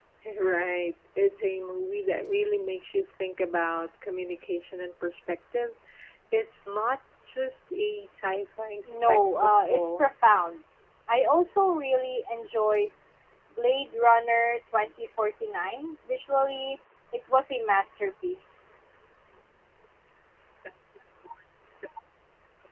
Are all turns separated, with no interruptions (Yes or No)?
No